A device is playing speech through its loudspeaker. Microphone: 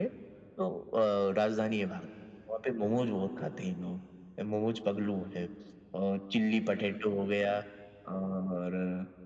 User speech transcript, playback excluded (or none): none